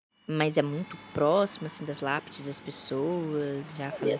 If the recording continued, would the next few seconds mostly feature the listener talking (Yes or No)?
Yes